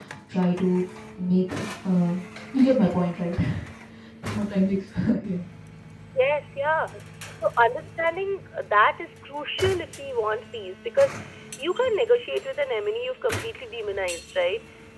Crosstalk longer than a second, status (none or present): none